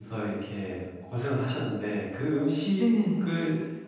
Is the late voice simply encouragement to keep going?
Yes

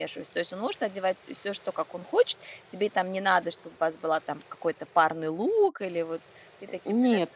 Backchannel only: No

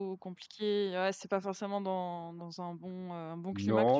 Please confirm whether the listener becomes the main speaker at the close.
Yes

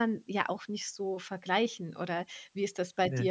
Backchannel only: Yes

